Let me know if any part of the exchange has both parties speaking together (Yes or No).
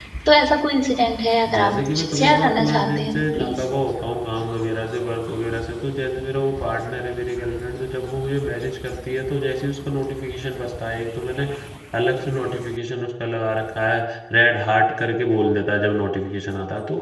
Yes